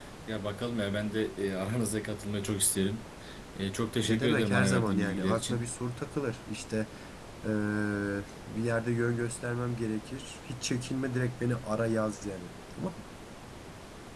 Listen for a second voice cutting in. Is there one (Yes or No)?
Yes